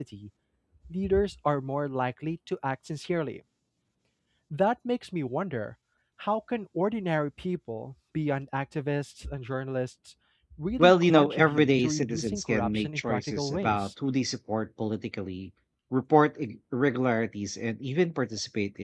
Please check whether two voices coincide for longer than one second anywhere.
Yes, from 10.8 s

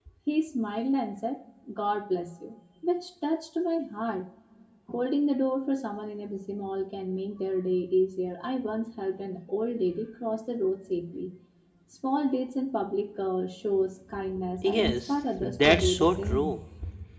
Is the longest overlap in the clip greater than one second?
Yes, from 14.6 s

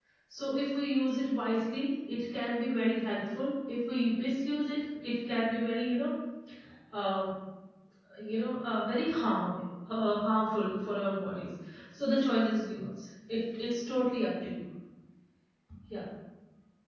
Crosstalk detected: No

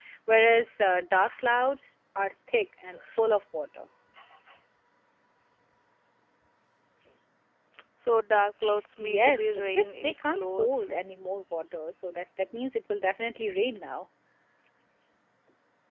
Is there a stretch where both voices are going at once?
Yes, from 9.0 s

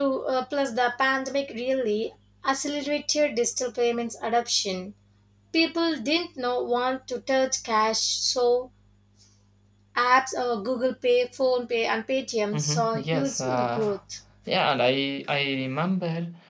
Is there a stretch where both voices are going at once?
Yes, from 12.5 s

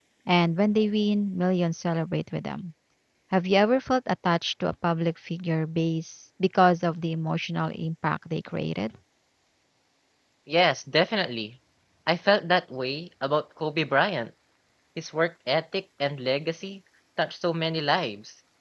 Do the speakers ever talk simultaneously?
No

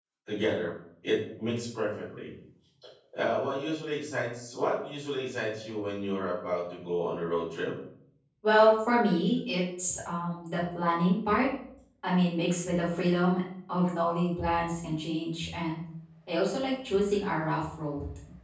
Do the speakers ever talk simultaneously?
No

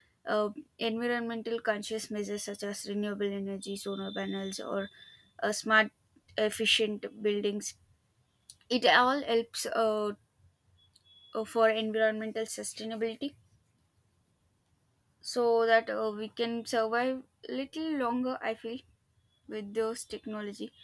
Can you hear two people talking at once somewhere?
No

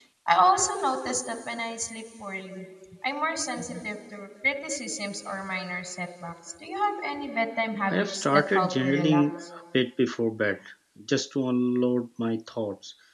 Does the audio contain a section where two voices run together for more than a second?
Yes, from 7.9 s

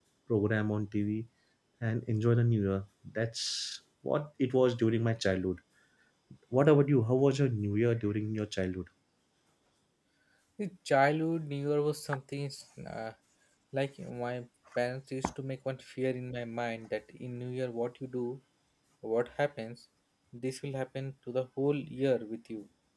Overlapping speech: No

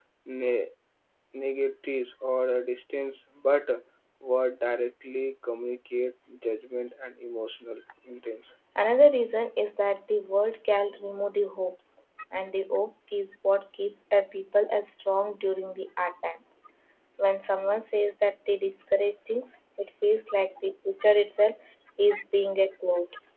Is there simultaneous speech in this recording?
No

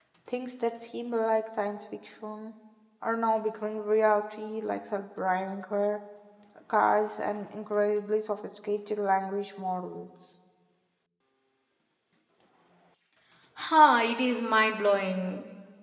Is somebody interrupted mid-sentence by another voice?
No

